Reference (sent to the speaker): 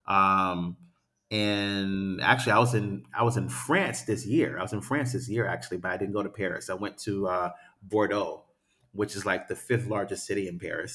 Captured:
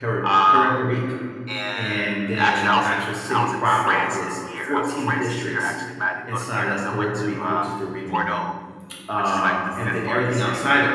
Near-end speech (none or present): present